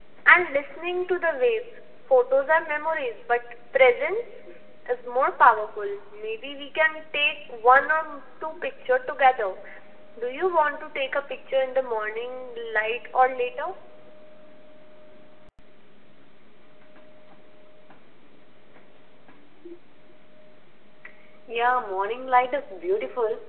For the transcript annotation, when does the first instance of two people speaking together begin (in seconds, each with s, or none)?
none